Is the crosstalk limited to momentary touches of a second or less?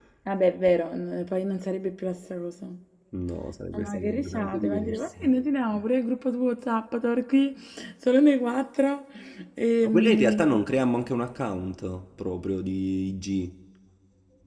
No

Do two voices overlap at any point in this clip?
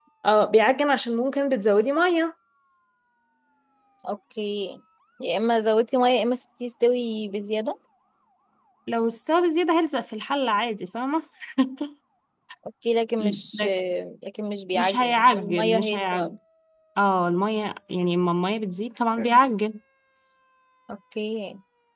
Yes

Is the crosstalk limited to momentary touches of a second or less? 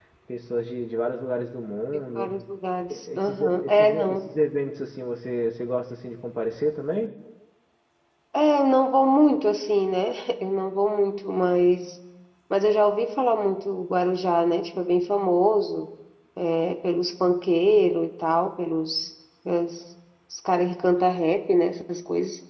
No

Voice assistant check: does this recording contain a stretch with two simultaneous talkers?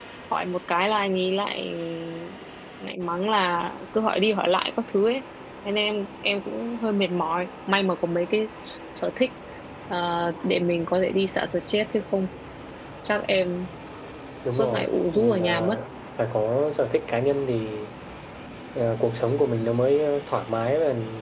Yes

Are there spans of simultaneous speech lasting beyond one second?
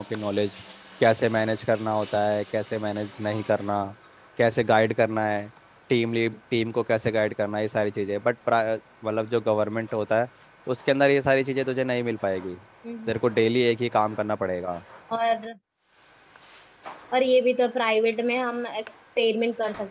No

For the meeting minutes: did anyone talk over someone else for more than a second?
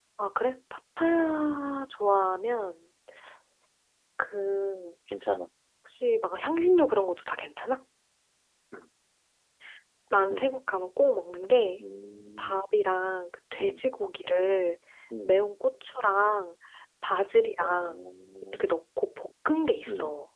No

